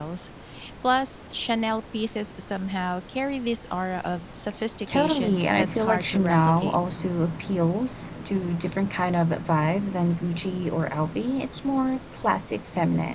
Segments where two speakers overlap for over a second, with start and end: 4.9-6.8

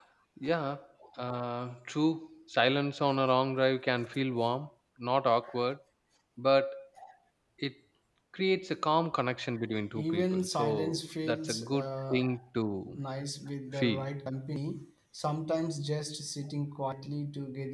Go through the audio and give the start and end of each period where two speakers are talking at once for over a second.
9.9-12.3

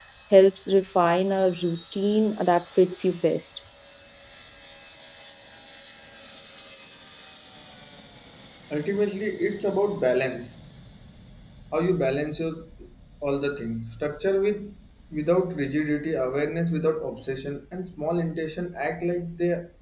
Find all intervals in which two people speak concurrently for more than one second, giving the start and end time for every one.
none

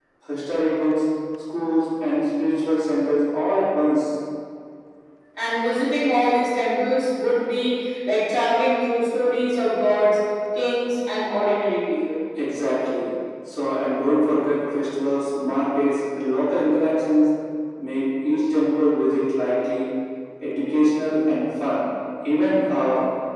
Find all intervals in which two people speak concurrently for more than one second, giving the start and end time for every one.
none

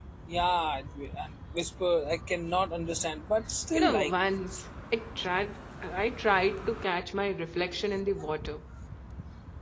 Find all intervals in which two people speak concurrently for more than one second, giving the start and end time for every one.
none

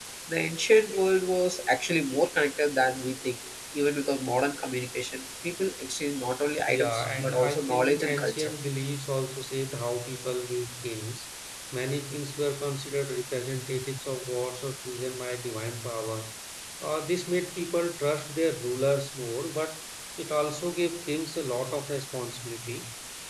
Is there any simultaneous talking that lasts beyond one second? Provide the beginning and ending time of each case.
6.7-8.5

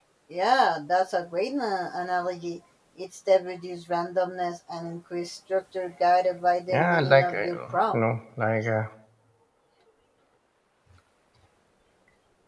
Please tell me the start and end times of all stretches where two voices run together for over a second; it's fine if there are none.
6.7-8.0

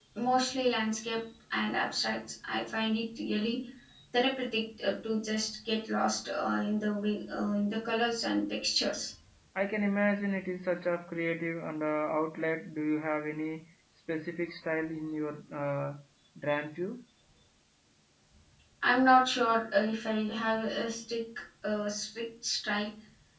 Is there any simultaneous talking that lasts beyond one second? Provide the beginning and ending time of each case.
none

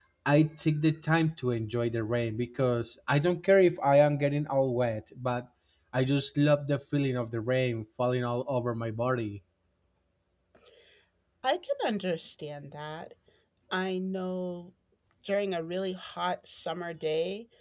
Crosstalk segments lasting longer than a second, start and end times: none

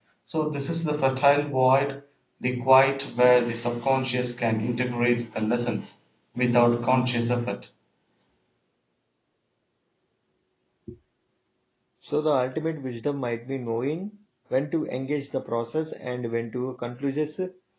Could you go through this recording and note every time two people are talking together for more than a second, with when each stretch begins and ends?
none

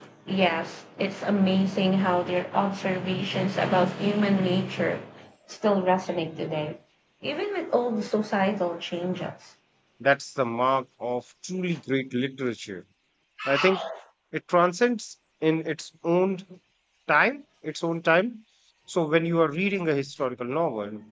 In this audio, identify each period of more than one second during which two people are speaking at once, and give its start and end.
none

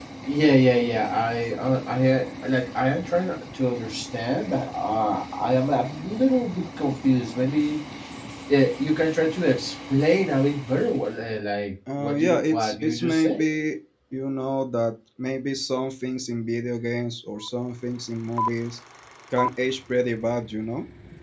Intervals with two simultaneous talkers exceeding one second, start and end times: 12.0-13.4

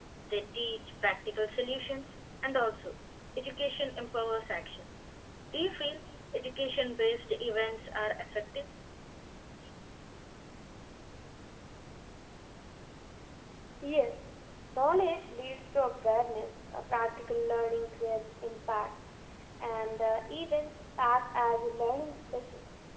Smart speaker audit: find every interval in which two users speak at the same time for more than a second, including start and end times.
none

